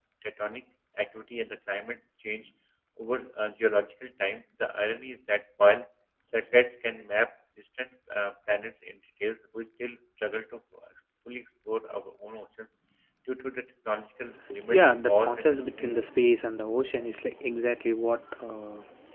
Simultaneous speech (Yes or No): Yes